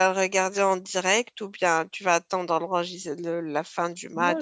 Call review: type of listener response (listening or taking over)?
taking over